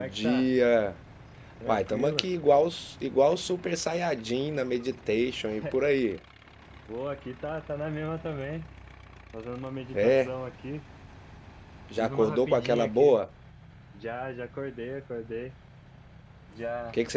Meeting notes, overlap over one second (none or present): present